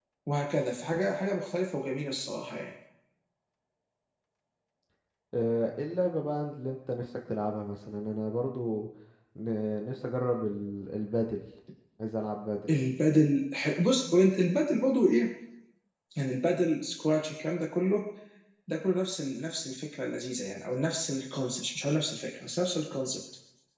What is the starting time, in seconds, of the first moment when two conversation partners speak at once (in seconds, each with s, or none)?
none